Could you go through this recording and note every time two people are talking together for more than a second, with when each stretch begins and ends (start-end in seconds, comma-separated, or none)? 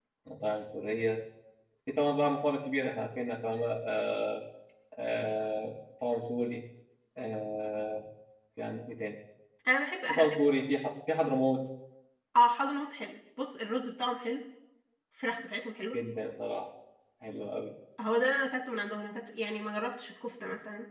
none